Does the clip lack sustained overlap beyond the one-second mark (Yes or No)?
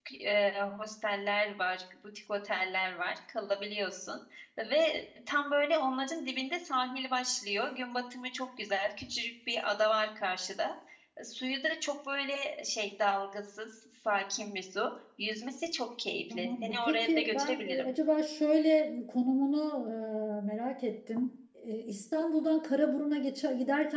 No